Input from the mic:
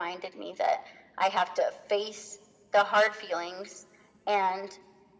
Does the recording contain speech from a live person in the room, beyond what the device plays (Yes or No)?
No